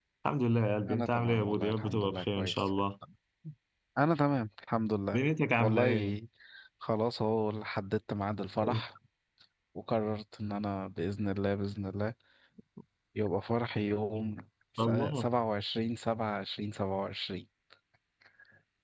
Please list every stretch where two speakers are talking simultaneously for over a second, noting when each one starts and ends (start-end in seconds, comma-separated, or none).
0.9-2.6